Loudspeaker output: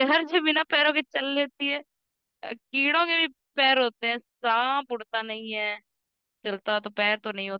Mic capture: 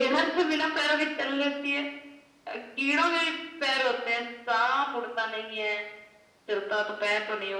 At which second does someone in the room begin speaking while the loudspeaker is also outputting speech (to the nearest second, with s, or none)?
none